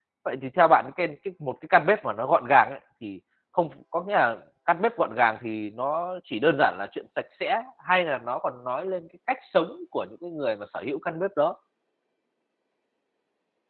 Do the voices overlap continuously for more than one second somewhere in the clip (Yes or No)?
No